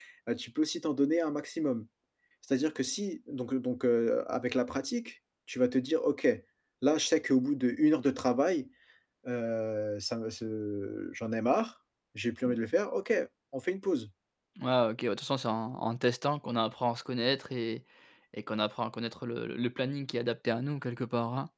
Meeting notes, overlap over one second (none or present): none